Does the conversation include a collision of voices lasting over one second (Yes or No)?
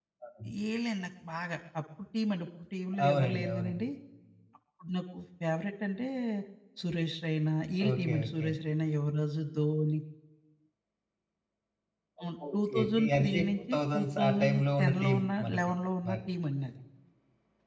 Yes